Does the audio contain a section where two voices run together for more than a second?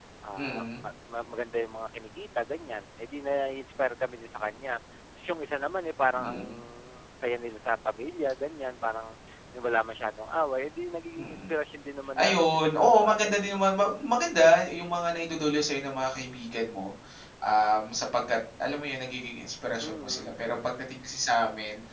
Yes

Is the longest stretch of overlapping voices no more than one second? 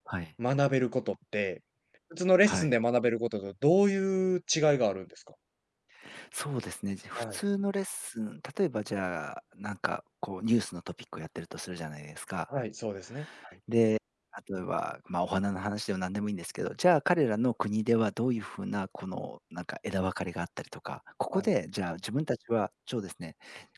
Yes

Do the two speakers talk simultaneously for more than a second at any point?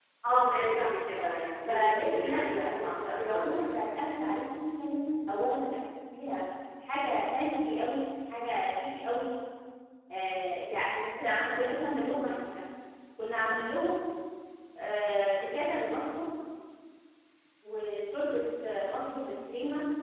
Yes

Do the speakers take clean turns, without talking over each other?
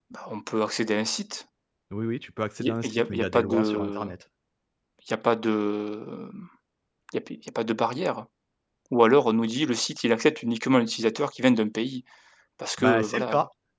No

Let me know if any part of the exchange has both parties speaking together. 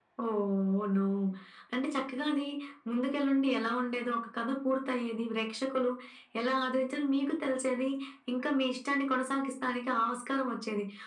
No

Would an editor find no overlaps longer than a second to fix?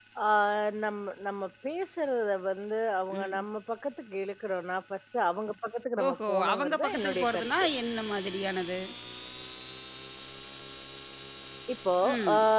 No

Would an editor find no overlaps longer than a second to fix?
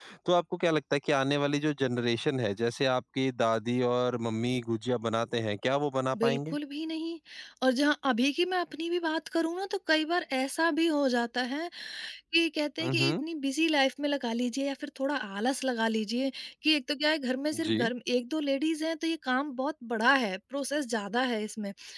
Yes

